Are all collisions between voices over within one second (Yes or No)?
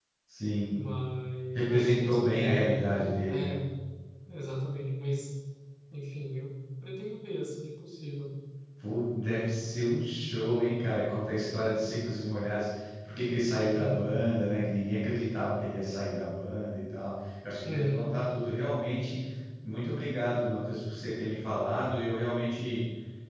No